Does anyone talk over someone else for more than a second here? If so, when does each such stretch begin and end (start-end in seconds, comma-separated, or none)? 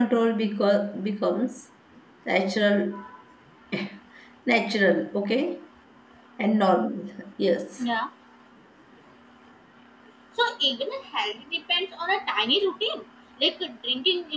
none